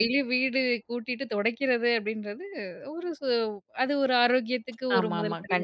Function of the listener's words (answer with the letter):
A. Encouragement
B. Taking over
B